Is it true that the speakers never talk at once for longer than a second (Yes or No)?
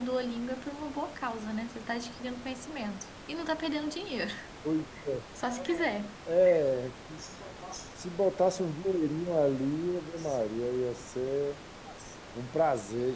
Yes